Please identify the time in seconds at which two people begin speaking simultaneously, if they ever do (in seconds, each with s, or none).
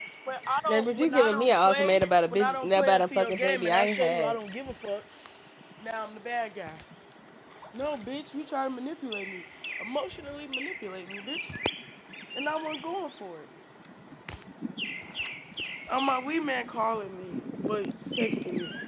0.7 s